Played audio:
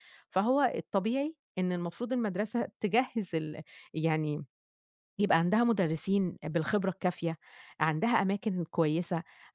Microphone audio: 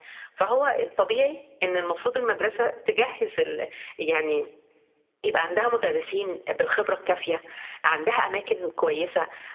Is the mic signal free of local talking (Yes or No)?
Yes